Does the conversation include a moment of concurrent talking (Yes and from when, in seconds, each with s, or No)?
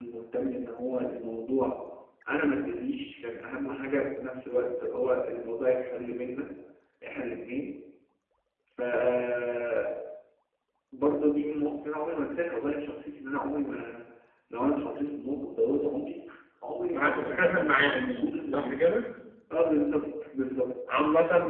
Yes, from 17.0 s